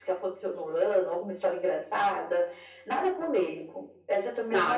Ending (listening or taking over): taking over